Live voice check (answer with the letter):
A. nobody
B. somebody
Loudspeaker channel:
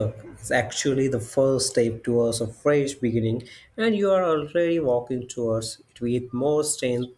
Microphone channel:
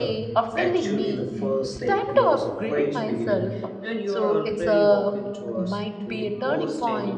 B